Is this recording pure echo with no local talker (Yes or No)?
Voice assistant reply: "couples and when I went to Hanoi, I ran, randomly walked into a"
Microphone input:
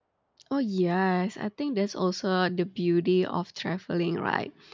No